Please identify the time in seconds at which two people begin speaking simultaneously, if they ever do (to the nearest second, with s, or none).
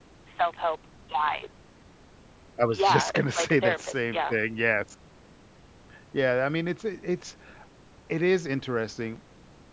3 s